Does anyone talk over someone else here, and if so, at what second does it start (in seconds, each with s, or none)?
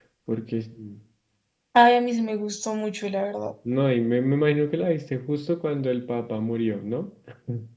none